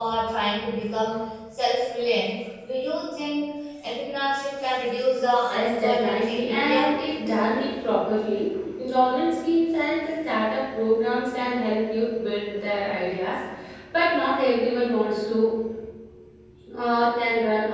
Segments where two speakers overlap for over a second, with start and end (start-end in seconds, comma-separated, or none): 5.5-6.9